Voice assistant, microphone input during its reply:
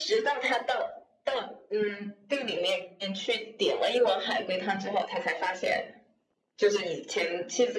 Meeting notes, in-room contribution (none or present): none